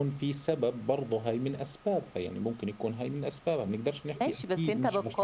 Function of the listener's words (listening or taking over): taking over